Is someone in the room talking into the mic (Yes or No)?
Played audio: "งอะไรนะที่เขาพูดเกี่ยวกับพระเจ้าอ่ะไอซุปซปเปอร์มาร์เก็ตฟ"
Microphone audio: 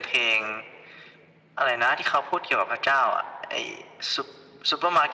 No